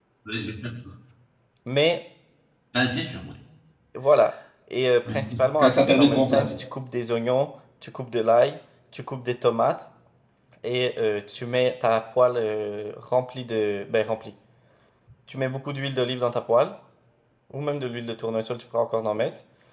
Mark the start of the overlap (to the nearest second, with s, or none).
5 s